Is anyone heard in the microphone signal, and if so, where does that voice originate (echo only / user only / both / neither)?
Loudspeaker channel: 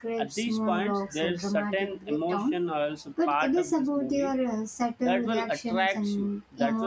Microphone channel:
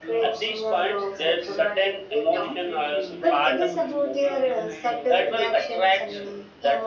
both